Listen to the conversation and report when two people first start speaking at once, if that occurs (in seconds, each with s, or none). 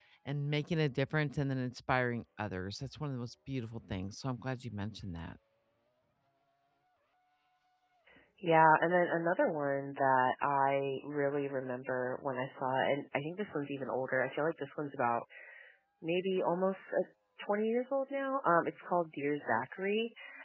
none